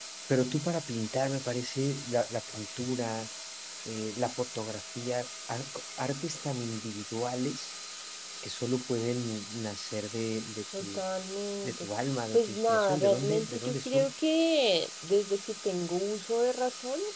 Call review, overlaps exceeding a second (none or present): present